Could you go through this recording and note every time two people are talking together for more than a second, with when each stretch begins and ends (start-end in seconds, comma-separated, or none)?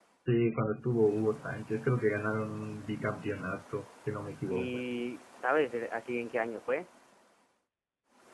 none